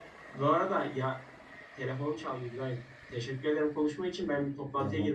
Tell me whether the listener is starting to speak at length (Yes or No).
No